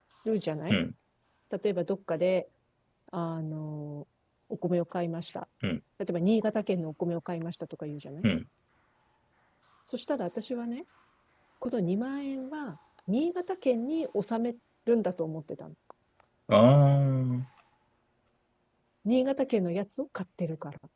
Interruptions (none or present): none